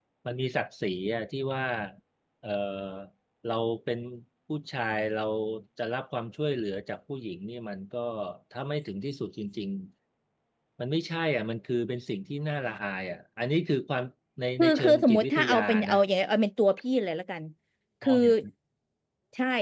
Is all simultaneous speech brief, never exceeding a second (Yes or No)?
No